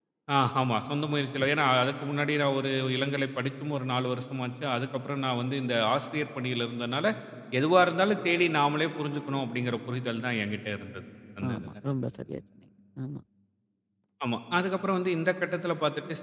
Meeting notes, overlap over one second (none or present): none